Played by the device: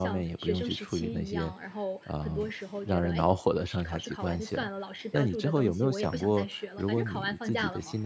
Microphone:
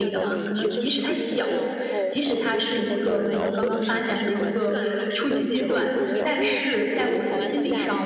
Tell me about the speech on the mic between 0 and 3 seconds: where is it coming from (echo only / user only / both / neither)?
both